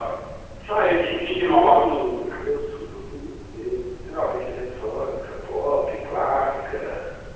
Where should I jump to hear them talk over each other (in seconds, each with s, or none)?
0.7 s